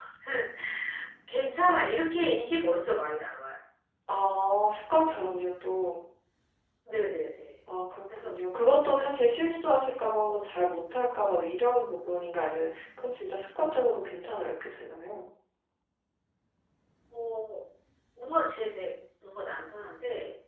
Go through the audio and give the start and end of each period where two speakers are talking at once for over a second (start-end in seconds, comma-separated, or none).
none